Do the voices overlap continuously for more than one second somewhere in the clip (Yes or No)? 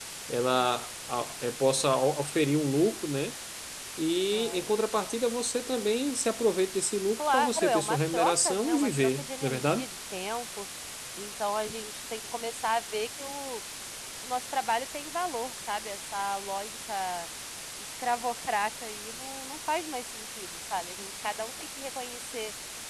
Yes